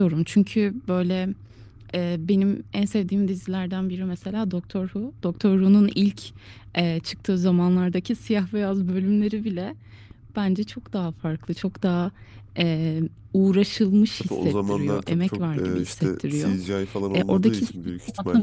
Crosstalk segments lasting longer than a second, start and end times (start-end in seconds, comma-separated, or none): 14.2-16.6